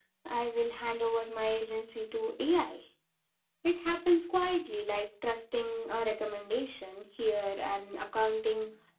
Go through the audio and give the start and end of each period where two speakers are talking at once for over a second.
none

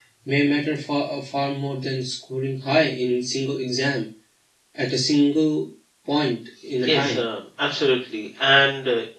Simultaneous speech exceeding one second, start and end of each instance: none

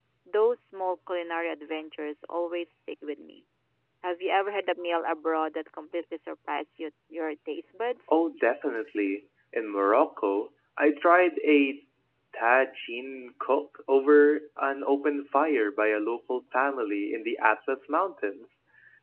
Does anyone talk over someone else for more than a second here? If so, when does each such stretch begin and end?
none

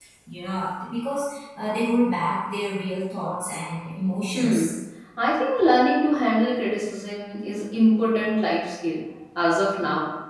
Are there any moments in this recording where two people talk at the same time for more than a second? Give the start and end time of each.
none

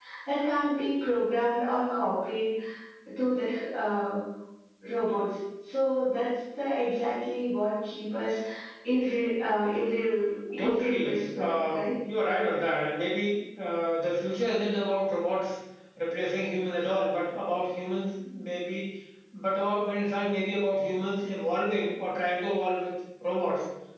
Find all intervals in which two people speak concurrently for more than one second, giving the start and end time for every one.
10.6-11.8

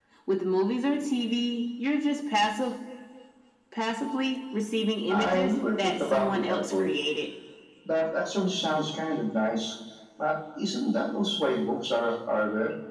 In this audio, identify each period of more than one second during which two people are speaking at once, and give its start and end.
5.1-6.9

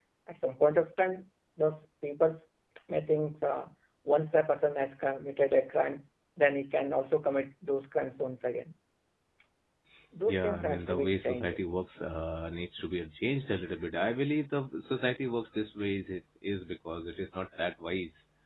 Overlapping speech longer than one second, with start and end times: 10.3-11.6

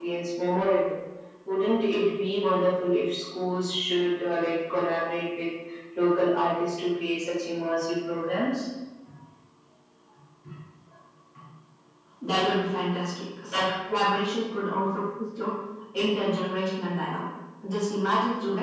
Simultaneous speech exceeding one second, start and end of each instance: none

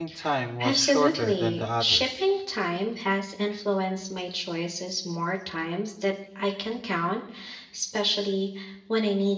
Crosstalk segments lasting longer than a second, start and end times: 0.6-2.1

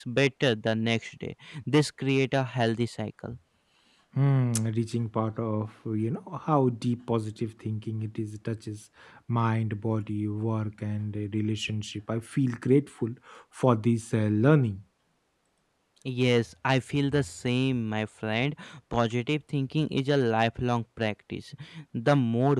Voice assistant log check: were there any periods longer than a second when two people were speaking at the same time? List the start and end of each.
none

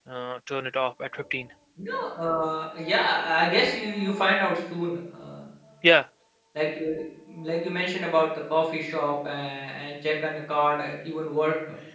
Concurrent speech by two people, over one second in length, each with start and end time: none

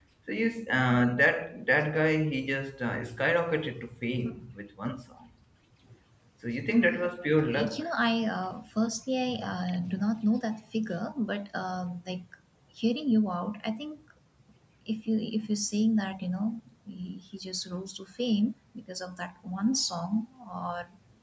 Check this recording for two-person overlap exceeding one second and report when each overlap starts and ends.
none

